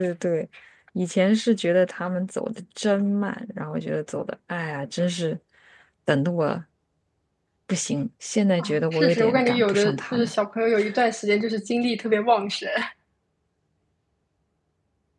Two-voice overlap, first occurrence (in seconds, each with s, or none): 8.6 s